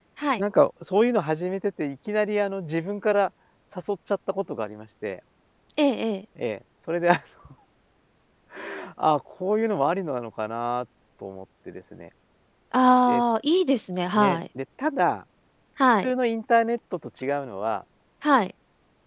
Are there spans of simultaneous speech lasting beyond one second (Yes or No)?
No